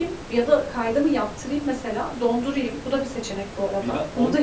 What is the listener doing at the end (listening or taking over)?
taking over